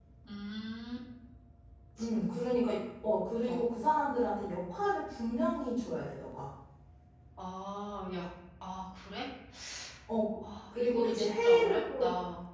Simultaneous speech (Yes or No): Yes